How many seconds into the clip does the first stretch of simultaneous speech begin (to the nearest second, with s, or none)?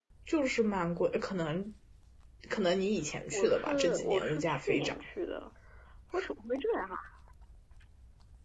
3 s